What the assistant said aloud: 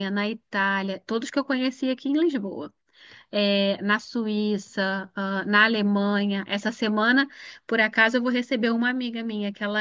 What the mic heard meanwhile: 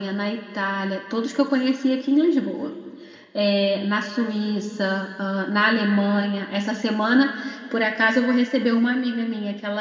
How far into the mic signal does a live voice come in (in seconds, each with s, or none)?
none